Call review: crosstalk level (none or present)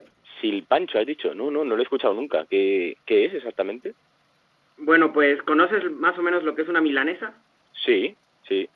none